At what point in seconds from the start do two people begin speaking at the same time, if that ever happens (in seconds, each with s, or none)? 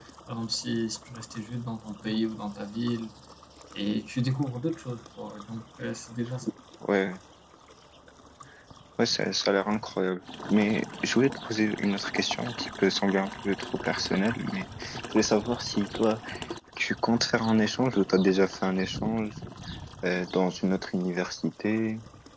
none